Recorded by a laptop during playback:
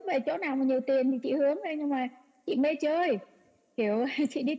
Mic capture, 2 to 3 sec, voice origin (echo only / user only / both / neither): echo only